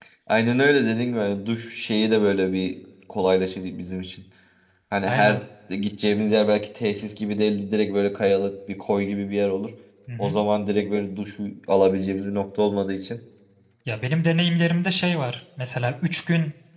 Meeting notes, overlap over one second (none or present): none